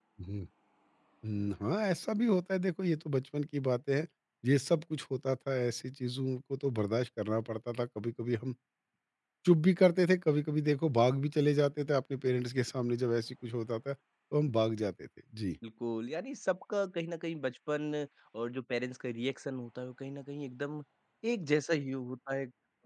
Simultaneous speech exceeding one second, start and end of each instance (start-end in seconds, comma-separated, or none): none